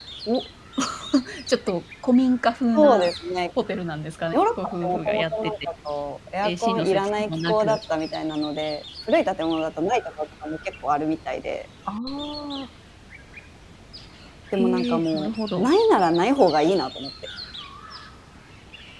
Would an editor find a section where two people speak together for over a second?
Yes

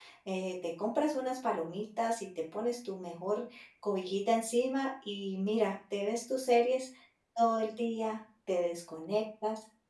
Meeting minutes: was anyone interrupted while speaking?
No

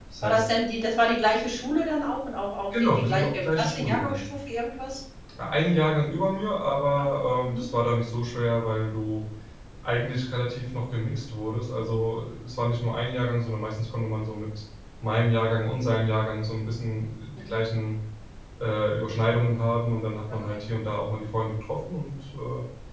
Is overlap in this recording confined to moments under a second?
No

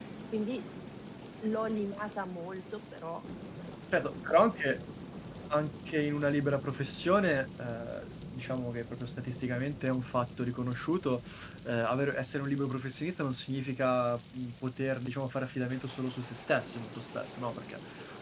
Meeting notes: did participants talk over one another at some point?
No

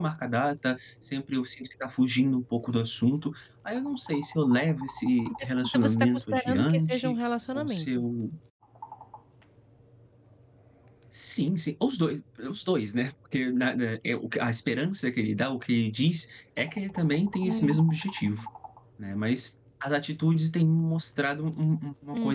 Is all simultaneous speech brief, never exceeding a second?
No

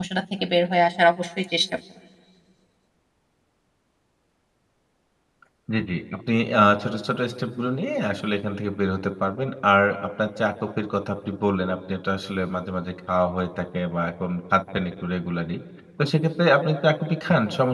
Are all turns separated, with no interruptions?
Yes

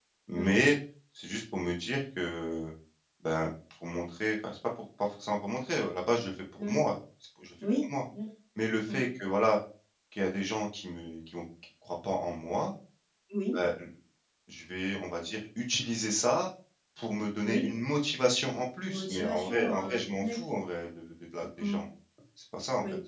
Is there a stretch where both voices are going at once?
Yes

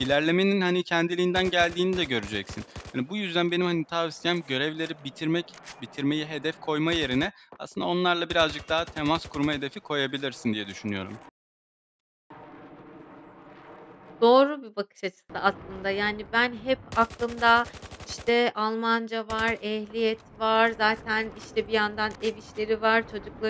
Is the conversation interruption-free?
Yes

